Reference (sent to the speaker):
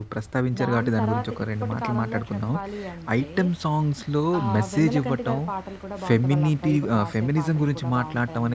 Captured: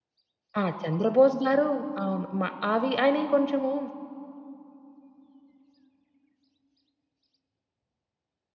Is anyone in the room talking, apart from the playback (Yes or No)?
Yes